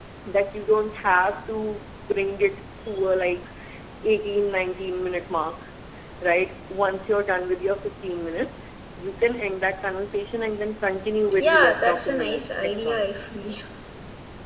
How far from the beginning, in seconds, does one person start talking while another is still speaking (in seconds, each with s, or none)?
11.2 s